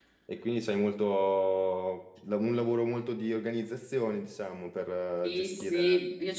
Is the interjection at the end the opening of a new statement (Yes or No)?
Yes